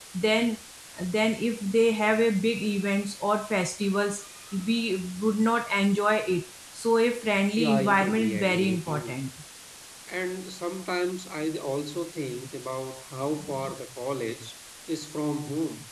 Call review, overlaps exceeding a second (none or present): present